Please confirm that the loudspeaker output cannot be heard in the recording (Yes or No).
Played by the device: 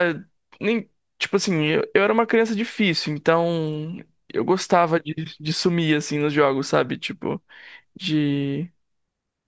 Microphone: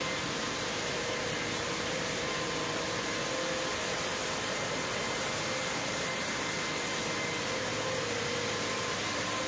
Yes